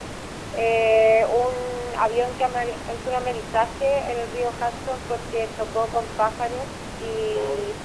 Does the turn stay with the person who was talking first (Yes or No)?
Yes